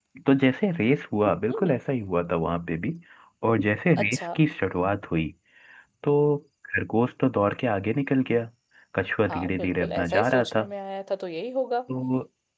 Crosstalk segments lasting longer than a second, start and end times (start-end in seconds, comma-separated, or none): 9.3-10.6